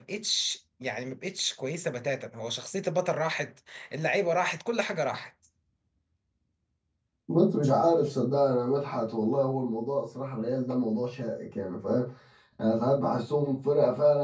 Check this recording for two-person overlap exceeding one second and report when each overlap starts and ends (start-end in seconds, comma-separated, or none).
none